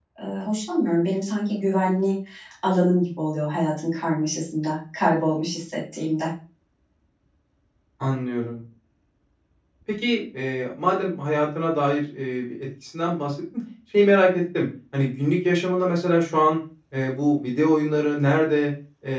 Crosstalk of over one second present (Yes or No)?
No